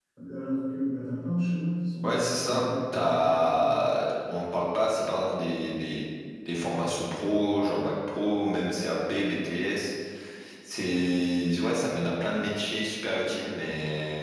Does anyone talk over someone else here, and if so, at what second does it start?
2.0 s

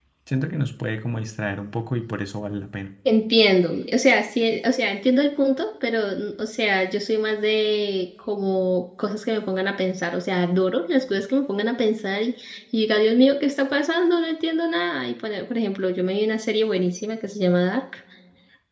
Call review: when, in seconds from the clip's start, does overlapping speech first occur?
none

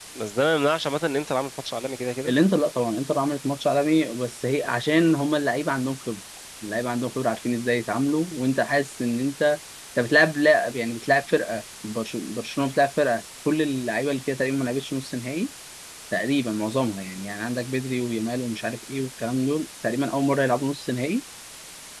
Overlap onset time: none

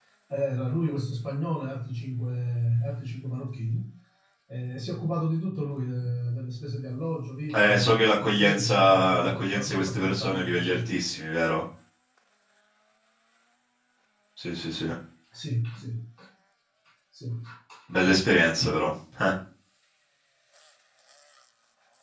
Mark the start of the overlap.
7.5 s

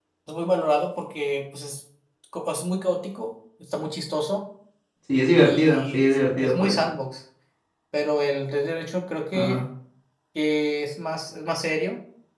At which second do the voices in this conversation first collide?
5.4 s

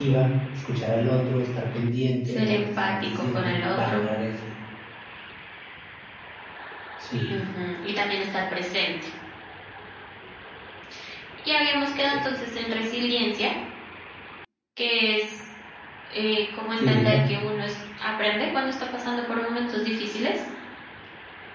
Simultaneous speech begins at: 2.2 s

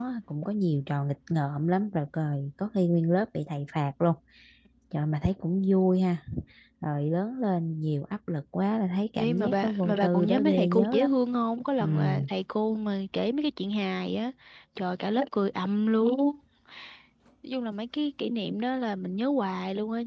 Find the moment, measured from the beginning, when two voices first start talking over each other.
9.2 s

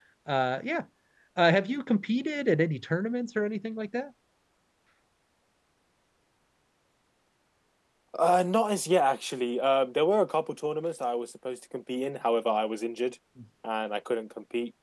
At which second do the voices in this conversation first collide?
none

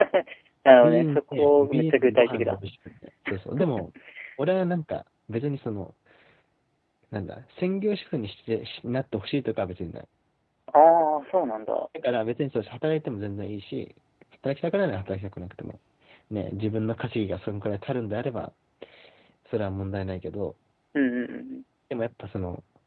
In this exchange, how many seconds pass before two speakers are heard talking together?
0.8 s

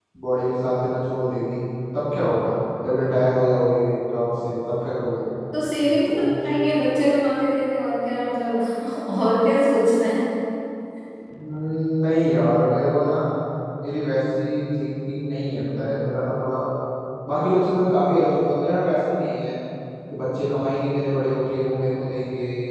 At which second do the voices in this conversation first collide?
none

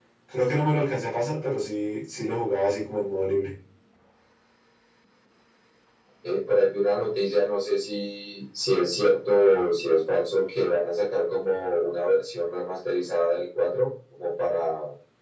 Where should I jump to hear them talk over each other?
none

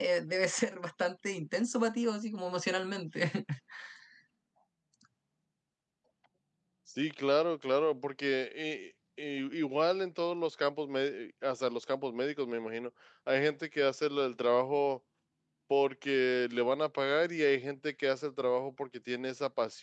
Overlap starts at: none

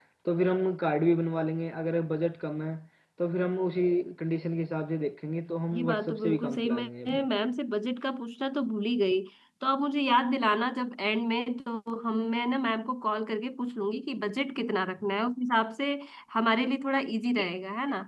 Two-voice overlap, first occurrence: 5.7 s

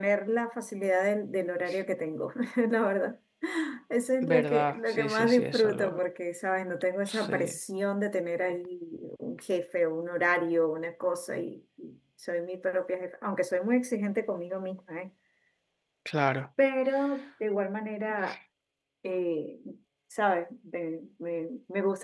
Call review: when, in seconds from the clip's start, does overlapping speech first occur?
4.2 s

